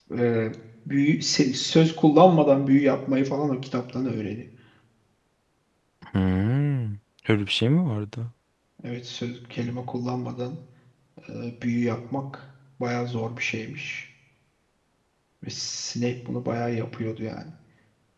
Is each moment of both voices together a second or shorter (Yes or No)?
Yes